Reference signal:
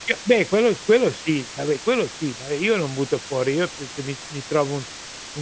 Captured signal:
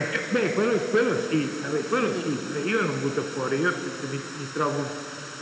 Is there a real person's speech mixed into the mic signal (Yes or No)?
Yes